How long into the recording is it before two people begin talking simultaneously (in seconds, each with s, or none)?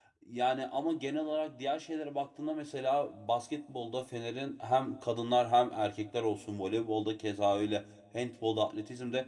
none